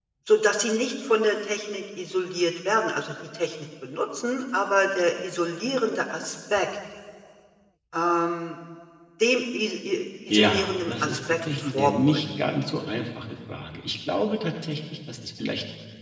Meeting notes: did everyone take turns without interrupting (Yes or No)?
No